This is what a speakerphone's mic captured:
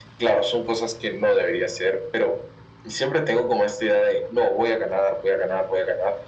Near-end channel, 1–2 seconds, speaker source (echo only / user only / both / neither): echo only